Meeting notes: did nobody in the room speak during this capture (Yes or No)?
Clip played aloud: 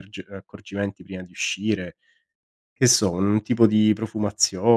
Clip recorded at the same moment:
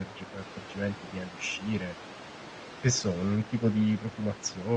Yes